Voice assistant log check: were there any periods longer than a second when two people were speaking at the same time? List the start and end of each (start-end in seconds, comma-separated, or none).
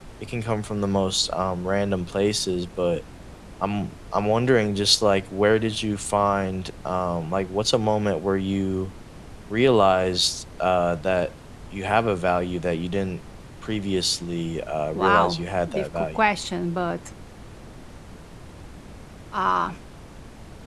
14.9-16.2